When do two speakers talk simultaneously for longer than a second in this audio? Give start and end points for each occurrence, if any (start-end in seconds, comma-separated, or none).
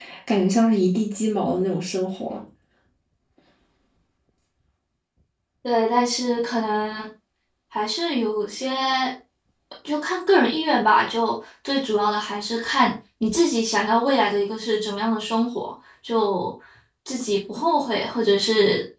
none